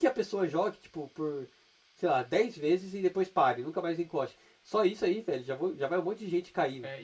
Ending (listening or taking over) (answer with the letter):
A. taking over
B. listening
A